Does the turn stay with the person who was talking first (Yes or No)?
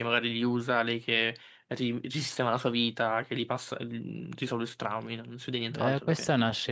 No